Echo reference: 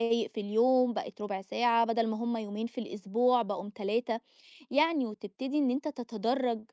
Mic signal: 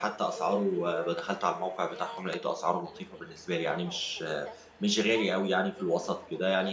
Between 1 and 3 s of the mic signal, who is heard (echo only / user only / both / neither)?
both